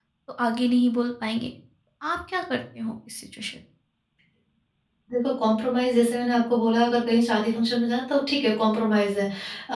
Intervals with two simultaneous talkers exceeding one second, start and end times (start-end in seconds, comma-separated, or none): none